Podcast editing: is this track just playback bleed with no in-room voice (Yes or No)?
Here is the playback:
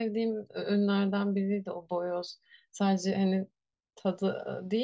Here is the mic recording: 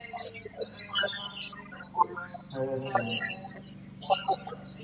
No